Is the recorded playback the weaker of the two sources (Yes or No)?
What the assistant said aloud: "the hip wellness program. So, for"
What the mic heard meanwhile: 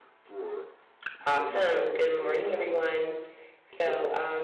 Yes